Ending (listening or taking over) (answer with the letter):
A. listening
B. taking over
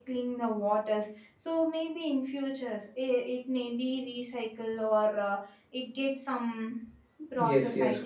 B